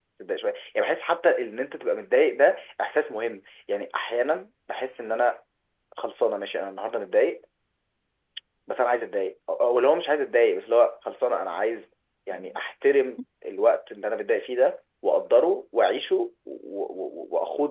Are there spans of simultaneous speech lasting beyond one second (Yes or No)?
No